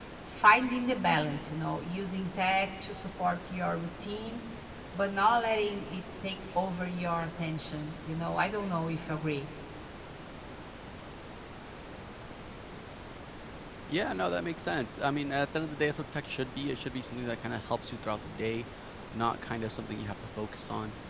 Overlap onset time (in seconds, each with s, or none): none